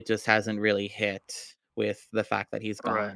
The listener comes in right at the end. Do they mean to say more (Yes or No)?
Yes